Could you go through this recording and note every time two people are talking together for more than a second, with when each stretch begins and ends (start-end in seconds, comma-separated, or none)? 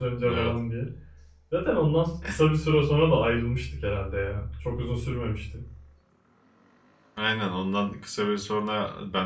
none